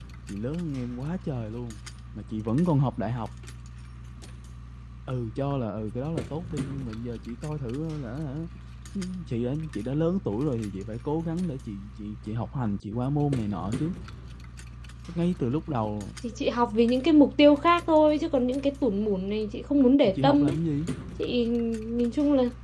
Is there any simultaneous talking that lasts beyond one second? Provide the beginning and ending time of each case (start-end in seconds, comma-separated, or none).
none